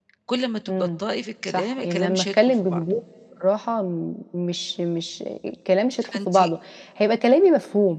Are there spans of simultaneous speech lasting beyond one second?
Yes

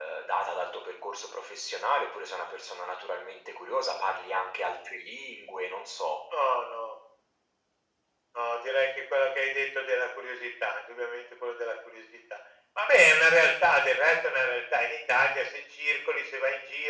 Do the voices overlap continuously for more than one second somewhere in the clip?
No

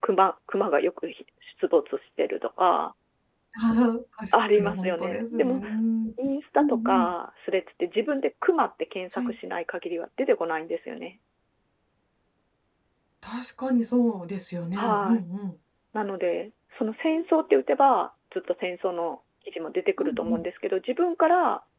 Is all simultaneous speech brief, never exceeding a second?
No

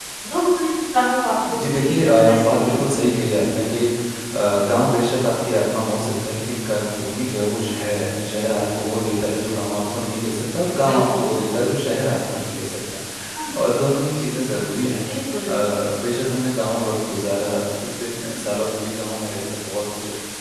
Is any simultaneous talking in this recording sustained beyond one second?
Yes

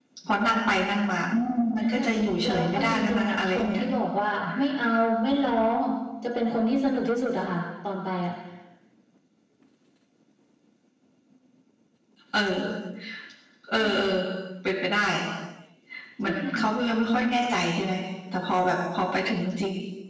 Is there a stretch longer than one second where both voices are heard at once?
Yes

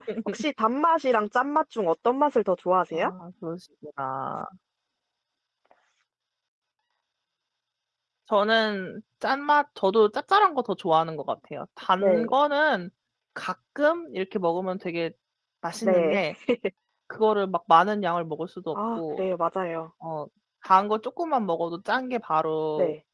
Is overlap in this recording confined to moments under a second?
Yes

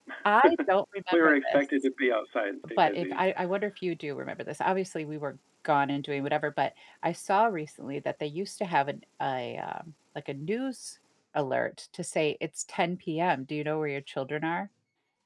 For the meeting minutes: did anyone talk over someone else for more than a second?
No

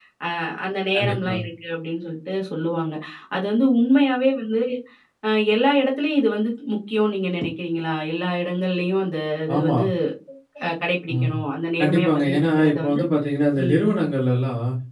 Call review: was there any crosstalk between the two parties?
Yes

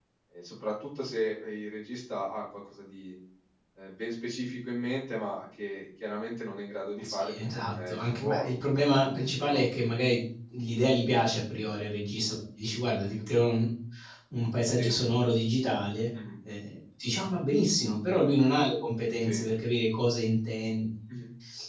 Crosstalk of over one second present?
Yes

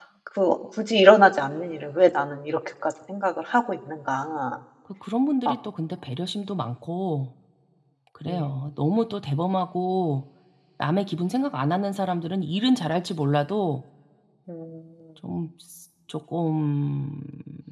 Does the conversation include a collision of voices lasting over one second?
No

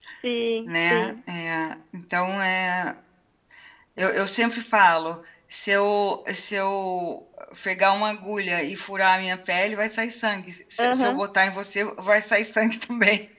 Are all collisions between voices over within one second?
Yes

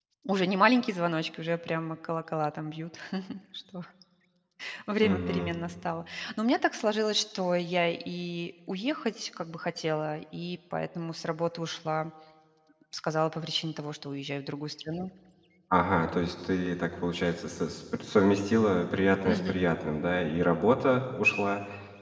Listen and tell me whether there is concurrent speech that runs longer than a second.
No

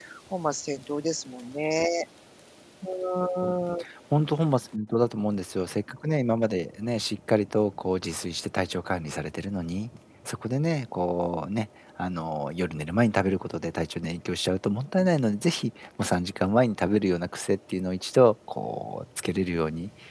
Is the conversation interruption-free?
Yes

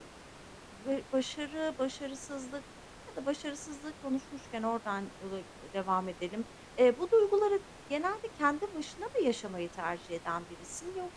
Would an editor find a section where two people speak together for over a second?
No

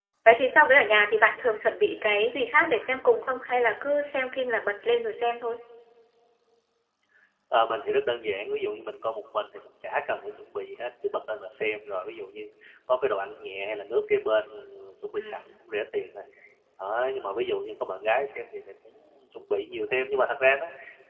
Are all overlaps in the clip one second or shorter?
Yes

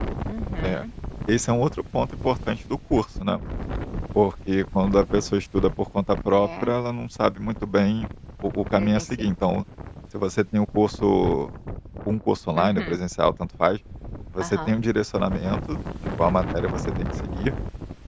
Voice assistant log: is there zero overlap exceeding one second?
Yes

